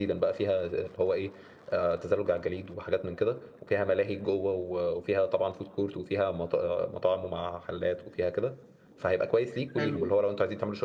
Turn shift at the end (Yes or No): No